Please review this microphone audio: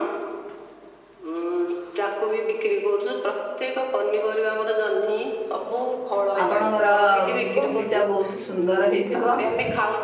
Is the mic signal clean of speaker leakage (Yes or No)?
No